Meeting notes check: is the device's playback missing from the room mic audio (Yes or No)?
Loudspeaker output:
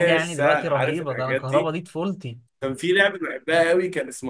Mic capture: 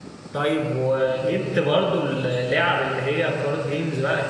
Yes